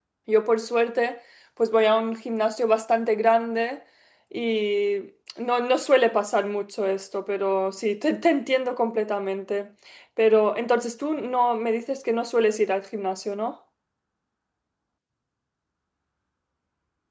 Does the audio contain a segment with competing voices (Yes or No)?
No